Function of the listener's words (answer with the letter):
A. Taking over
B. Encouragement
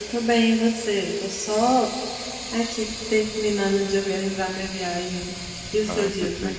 A